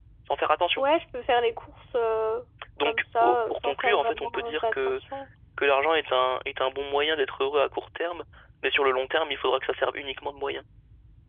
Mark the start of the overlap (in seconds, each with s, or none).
2.8 s